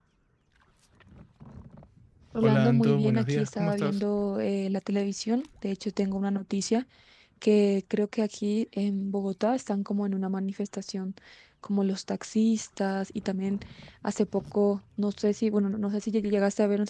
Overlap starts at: 2.4 s

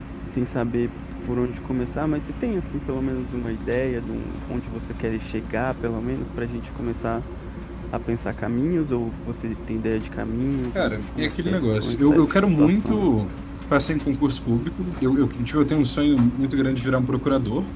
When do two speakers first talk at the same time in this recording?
10.8 s

